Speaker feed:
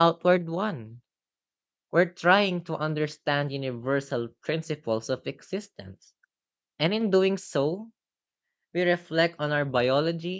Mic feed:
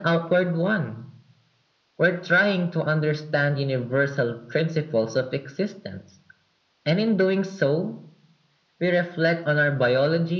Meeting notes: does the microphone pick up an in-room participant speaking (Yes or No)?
No